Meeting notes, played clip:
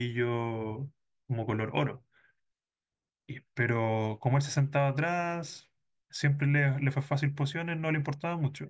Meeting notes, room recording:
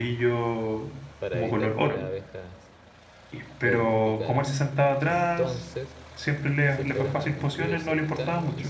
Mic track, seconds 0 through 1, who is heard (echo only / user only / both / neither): echo only